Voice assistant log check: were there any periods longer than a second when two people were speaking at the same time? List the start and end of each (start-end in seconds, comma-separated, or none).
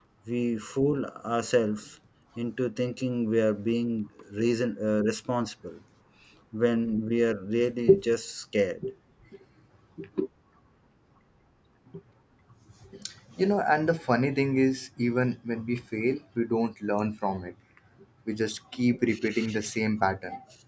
none